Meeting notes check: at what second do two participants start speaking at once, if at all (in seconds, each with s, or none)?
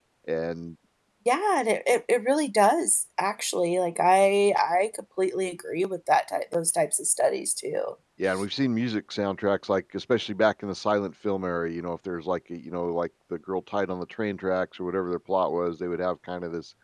none